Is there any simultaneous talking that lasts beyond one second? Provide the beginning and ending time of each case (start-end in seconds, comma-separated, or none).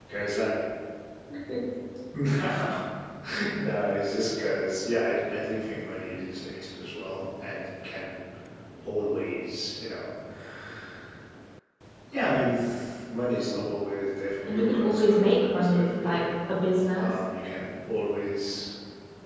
14.5-16.2